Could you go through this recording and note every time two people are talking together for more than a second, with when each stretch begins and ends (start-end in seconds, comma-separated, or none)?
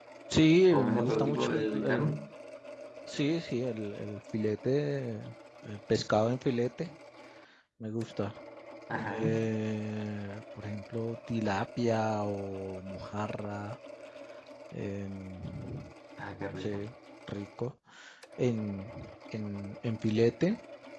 0.7-2.2